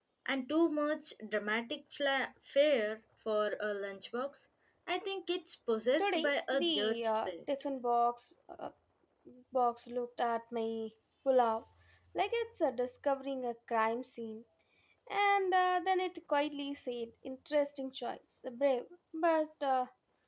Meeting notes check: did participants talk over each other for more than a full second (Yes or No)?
Yes